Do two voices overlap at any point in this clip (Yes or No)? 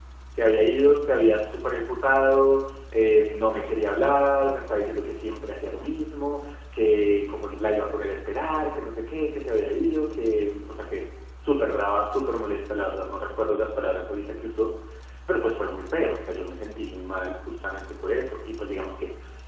No